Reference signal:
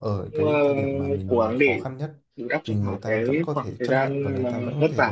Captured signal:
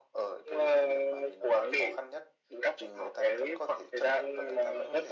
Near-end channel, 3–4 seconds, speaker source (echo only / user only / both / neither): echo only